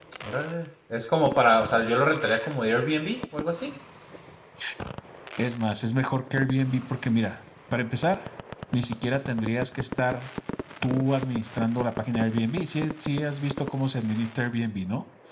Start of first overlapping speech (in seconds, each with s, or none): none